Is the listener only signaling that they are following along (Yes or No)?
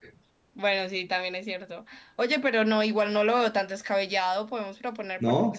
No